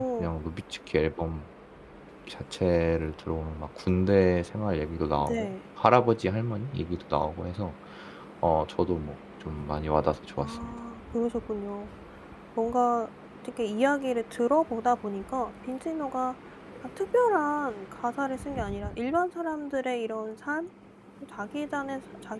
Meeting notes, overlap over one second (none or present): none